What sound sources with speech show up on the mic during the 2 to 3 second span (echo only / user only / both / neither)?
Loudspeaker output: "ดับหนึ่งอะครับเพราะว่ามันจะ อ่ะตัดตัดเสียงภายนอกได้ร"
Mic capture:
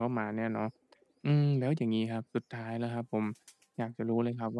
user only